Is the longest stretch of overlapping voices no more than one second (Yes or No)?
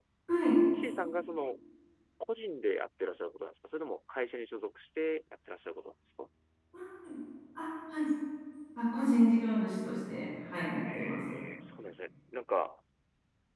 Yes